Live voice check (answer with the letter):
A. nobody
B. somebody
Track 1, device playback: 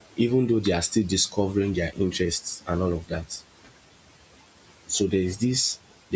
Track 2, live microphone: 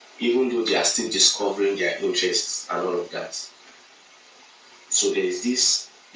A